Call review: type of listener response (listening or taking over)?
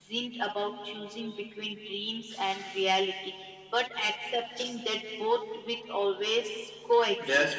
taking over